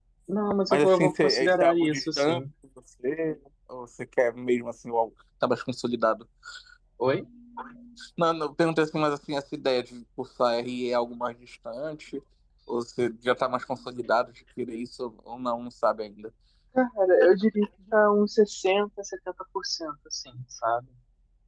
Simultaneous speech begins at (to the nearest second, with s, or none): 1 s